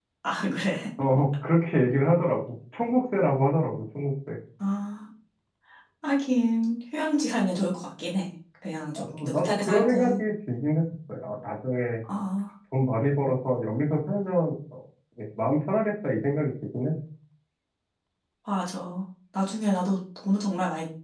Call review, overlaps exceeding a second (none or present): present